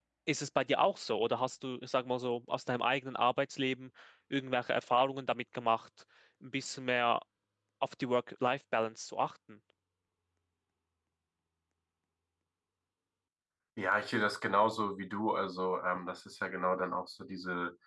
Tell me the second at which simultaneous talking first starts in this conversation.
none

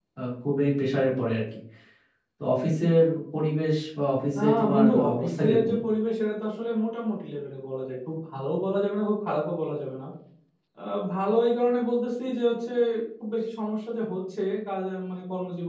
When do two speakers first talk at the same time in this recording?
4.3 s

